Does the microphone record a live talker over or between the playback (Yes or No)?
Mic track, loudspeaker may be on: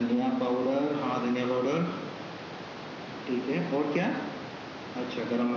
No